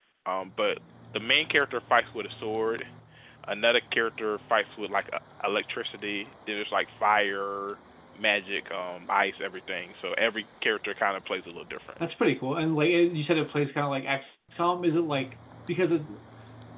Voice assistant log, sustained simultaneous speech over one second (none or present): none